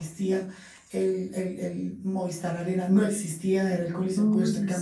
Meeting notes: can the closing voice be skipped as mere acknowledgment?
Yes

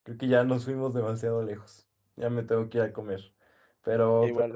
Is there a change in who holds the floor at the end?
No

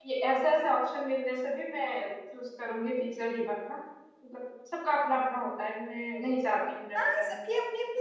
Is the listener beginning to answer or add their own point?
Yes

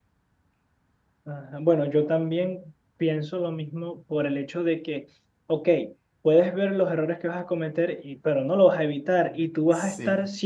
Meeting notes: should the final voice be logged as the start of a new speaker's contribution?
No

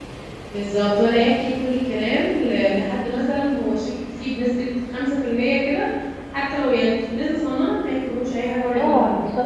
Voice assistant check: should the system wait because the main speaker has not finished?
No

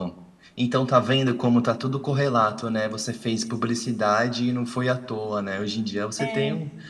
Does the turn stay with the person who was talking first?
Yes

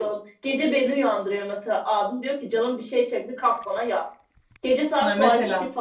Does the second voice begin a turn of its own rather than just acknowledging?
No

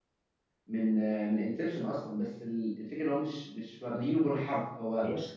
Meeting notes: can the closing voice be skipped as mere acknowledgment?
Yes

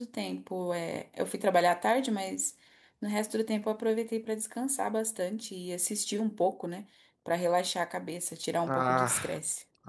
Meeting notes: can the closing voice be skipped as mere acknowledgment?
No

